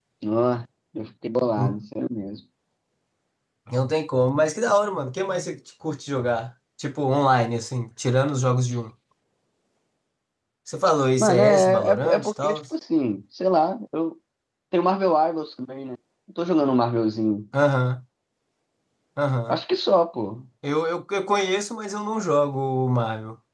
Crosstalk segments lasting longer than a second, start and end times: 11.2-12.6

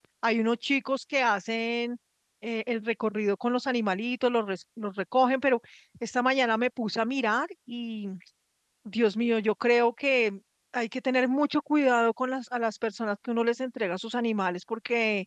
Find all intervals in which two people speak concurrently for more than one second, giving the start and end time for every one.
none

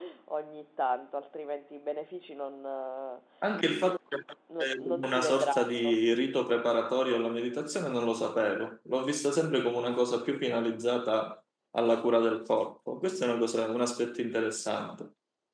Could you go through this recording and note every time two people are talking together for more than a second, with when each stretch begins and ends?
4.6-5.9

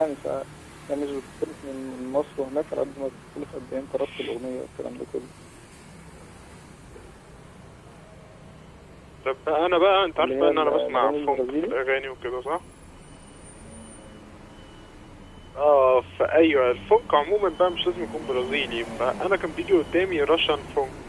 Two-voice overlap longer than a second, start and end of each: 10.2-11.7

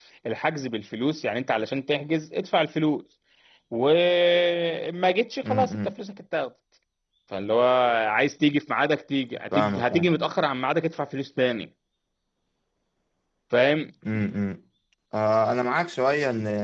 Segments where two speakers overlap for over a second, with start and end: none

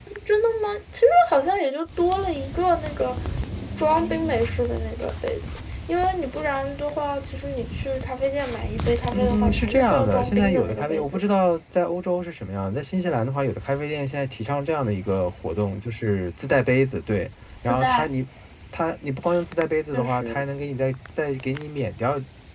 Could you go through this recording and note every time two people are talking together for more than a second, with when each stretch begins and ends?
9.1-11.2

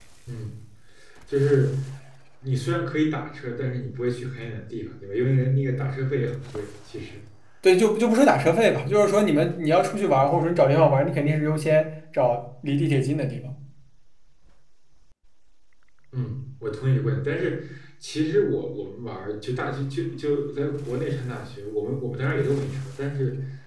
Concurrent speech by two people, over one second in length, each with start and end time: none

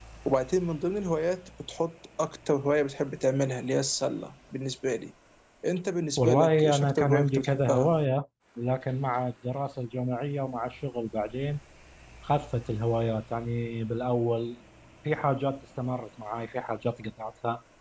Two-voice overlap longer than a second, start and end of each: 6.2-7.9

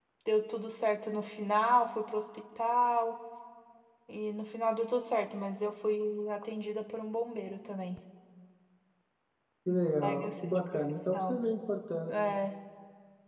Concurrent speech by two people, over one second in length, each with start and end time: 10.0-11.4

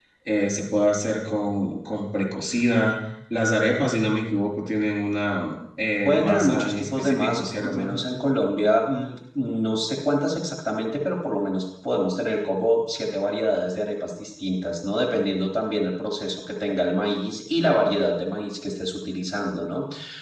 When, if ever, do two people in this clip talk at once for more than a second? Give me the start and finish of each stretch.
6.0-8.0

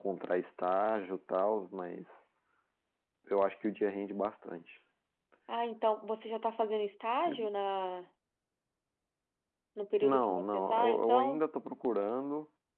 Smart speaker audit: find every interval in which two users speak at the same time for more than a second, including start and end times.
10.0-11.4

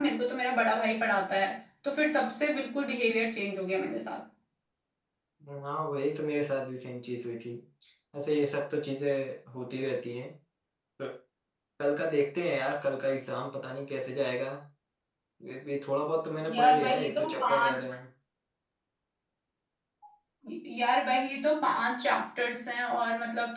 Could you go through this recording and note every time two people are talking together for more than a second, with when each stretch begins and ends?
16.5-17.8

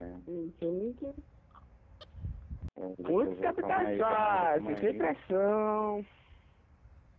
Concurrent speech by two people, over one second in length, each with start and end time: 3.1-5.1

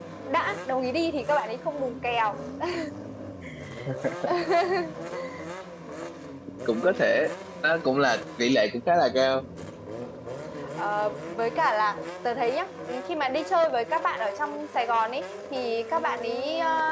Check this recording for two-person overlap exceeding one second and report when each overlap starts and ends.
none

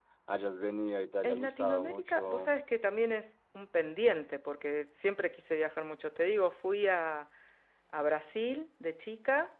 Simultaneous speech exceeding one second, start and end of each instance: 1.2-2.5

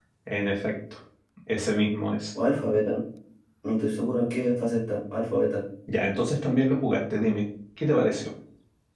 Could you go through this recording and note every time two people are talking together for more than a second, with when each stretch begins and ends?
none

